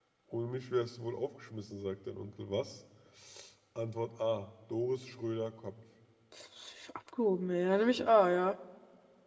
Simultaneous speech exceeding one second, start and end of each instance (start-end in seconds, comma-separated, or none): none